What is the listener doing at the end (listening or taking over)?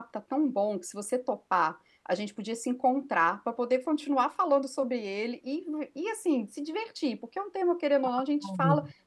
listening